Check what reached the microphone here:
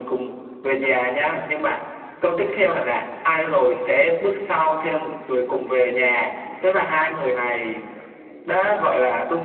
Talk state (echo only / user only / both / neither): echo only